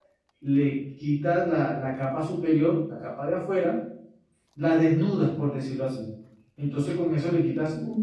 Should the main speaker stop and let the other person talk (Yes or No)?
No